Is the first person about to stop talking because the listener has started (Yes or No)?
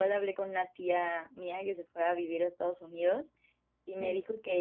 No